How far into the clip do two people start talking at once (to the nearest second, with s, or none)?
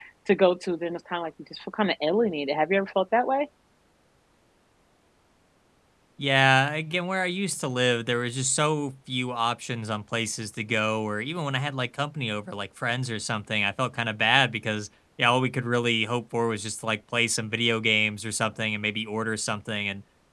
none